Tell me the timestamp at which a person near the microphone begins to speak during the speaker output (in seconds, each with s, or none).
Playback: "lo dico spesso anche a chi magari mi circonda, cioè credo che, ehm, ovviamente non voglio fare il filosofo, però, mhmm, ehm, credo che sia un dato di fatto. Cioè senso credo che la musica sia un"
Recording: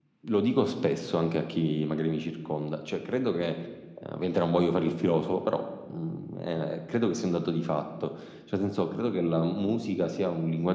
none